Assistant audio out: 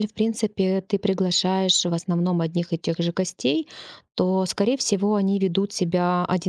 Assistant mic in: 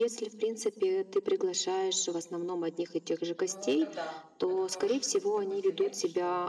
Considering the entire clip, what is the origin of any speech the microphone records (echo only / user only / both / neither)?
both